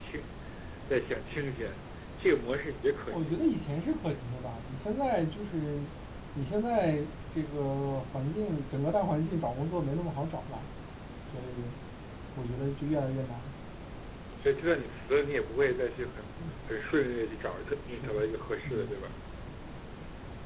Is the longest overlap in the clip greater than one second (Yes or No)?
No